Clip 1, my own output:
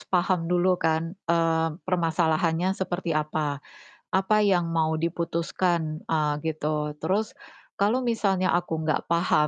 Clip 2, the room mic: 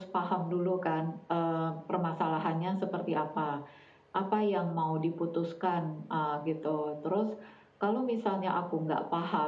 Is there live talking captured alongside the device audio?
No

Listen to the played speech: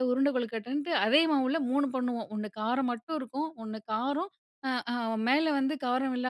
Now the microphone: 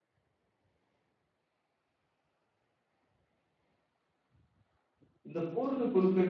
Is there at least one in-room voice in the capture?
Yes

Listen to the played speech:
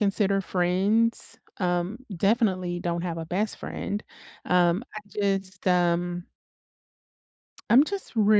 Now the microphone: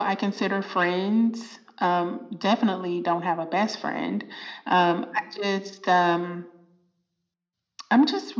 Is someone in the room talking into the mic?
No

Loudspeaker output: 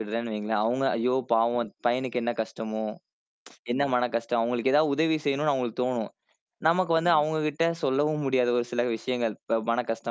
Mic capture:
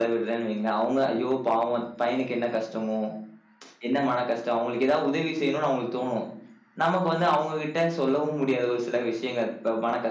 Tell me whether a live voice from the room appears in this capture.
No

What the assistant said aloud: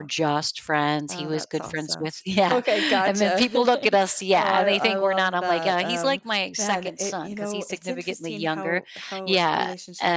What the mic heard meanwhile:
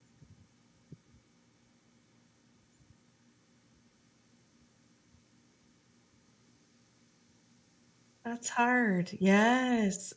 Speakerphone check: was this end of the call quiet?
No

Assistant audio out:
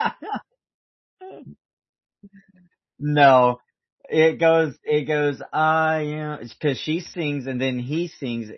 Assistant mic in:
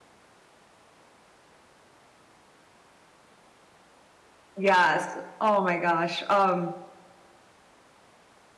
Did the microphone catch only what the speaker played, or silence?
No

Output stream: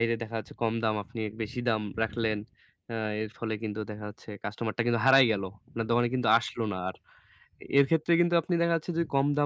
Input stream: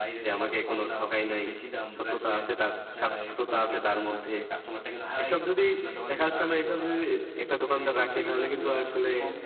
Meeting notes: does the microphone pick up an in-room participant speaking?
Yes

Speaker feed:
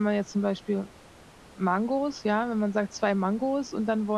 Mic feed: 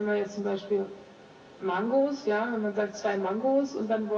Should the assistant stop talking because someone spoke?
No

